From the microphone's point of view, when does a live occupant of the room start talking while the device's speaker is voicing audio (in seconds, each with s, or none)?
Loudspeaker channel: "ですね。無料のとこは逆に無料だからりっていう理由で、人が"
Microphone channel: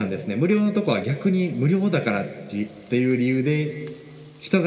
none